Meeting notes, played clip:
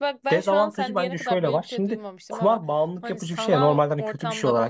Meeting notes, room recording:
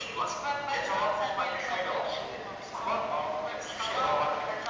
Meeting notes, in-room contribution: none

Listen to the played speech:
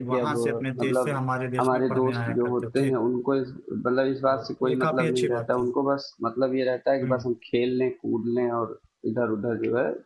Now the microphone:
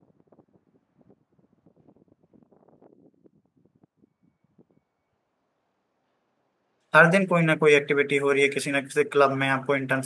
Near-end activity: present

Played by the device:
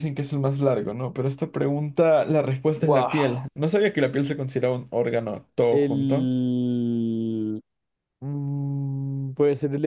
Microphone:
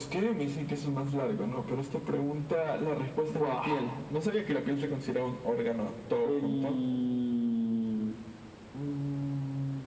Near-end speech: none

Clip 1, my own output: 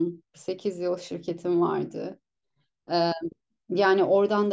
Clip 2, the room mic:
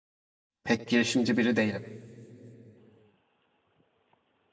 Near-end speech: present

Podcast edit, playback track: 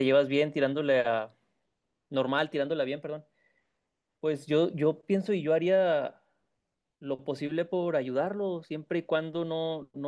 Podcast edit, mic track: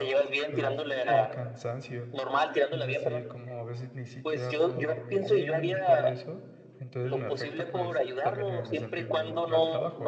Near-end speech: present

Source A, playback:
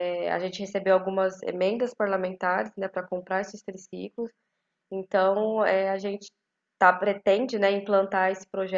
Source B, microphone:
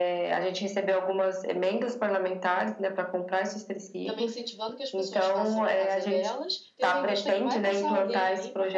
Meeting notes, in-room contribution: present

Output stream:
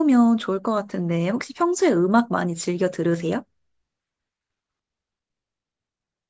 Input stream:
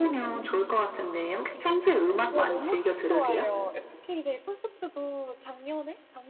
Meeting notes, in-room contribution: present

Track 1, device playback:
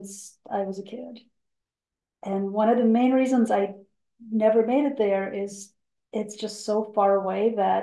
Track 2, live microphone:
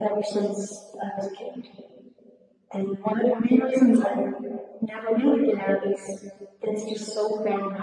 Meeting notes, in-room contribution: none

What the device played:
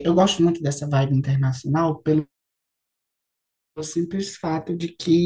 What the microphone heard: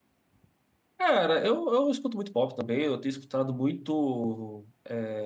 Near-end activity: present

